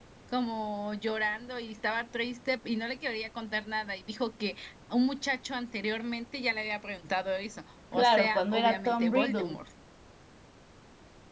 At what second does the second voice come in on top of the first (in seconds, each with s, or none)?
7.9 s